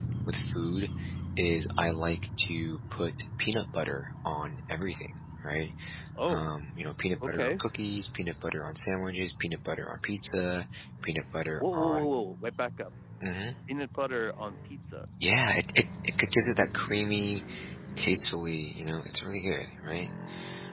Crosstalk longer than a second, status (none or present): none